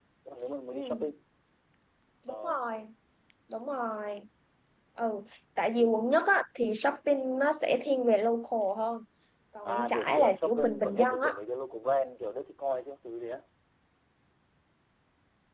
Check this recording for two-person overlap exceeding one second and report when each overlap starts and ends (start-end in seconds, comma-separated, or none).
9.6-11.3